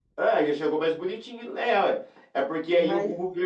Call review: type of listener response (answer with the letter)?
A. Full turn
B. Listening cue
B